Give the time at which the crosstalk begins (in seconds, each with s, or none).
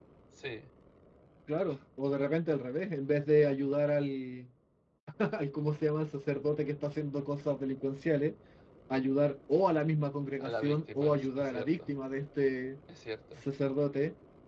10.4 s